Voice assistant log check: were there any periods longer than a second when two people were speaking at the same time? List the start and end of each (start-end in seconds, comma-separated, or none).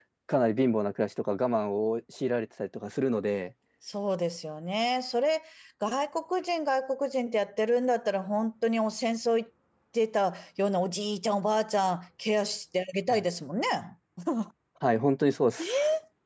none